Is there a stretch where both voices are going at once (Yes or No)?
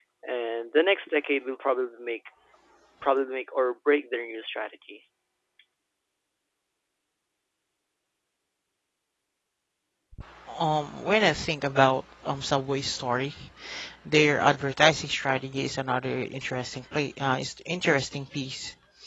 No